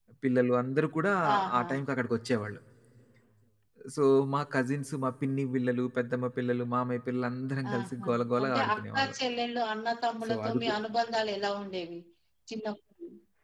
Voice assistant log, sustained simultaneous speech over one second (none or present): present